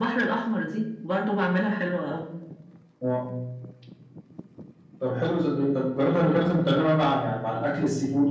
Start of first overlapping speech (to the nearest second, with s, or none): none